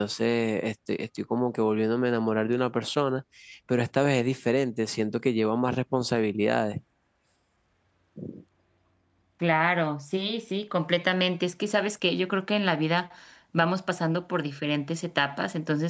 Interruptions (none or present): none